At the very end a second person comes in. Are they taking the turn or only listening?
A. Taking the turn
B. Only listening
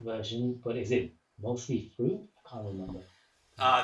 A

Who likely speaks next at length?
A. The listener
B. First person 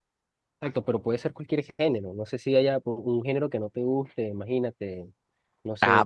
A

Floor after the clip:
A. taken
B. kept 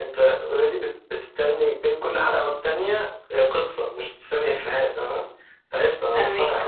B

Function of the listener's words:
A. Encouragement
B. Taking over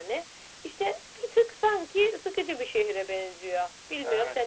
B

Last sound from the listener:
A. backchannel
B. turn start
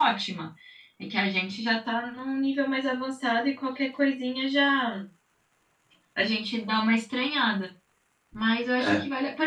A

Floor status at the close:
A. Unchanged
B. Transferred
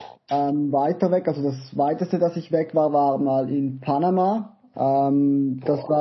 A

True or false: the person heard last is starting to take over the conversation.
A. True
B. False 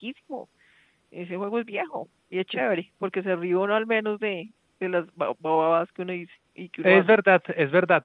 A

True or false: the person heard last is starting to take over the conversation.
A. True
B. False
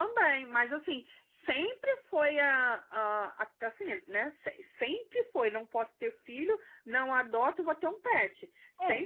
B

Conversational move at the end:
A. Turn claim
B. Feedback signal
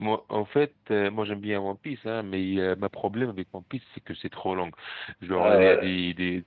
B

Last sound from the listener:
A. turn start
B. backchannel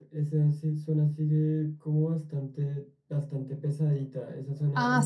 A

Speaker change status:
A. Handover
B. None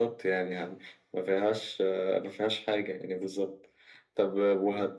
B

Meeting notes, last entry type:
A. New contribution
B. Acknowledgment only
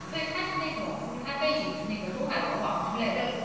B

